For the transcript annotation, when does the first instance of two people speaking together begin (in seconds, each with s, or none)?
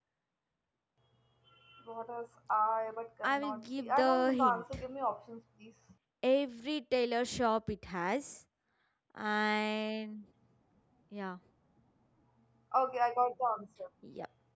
3.2 s